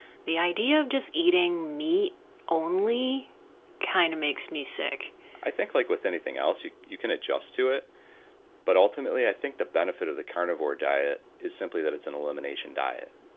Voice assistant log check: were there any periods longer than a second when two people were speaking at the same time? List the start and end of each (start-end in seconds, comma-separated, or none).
none